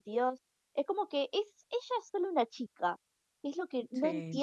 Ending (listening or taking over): listening